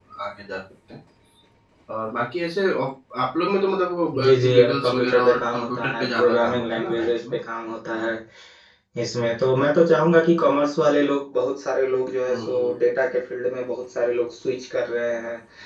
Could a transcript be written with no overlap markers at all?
No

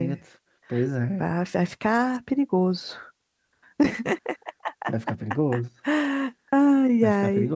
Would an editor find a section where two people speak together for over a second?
No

